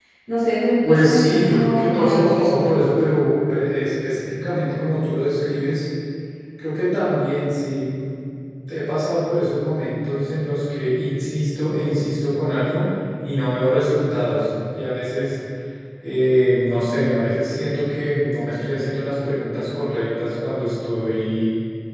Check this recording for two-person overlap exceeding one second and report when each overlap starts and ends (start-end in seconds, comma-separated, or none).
0.8-2.9